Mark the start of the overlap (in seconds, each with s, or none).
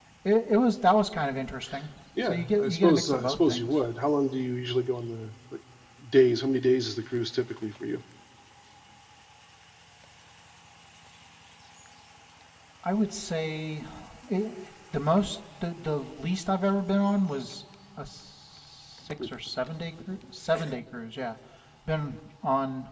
2.2 s